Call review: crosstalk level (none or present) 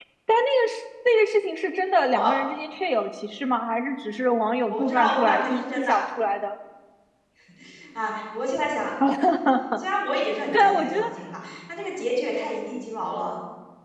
present